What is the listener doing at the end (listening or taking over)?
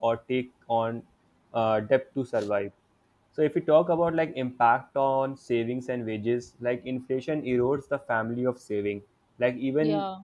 listening